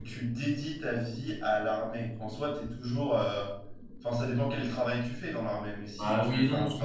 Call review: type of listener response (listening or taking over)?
taking over